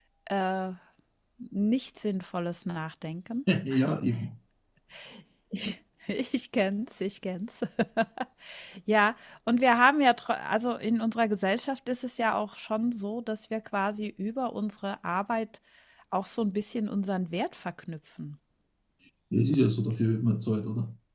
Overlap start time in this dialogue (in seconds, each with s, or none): none